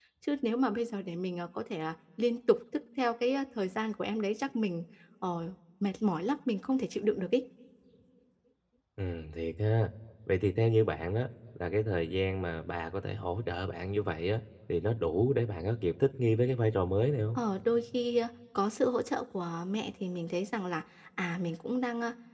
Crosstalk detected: No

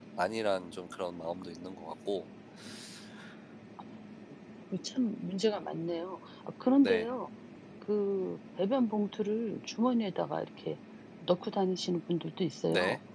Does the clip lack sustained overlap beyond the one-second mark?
Yes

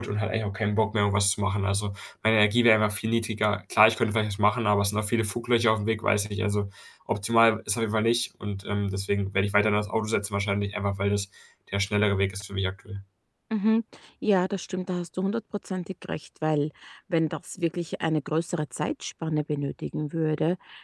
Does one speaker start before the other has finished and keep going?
No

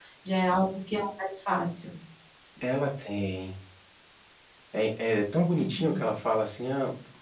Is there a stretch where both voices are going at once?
No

